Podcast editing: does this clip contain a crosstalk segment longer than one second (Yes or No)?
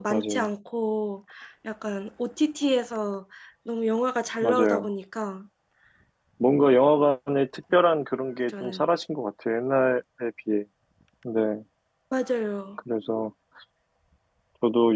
No